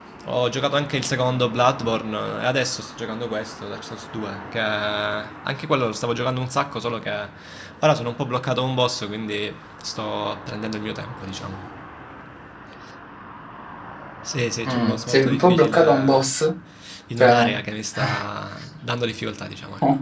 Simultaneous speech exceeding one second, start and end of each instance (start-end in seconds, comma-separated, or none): 14.6-16.3